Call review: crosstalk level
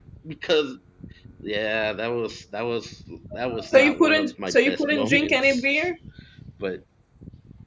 present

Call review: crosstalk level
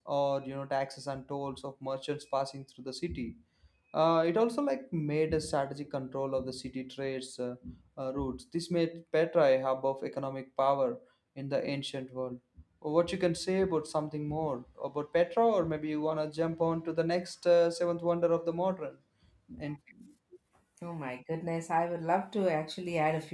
none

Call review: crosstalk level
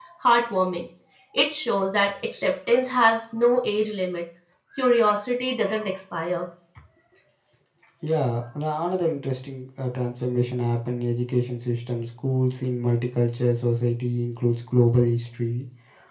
none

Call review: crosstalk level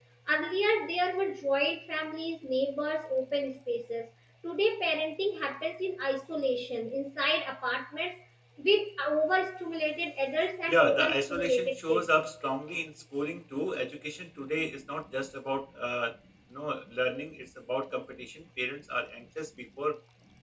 present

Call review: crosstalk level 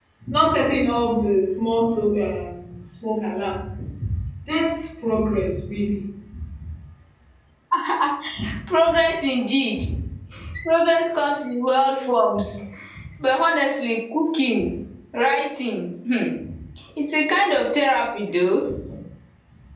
none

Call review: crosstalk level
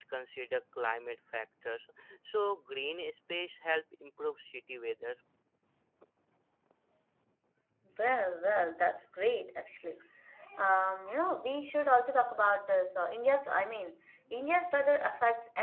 none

